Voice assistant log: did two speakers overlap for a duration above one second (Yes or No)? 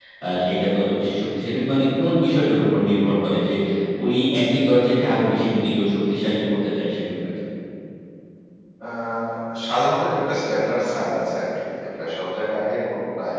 No